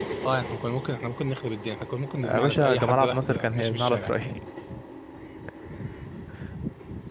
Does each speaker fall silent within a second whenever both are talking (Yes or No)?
No